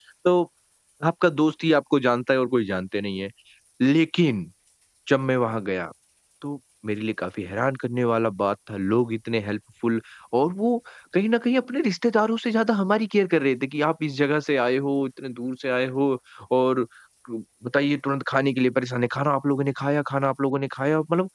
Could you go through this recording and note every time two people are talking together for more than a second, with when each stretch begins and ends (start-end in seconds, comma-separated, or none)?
none